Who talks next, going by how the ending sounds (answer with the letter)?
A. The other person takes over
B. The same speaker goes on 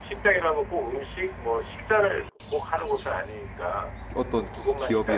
A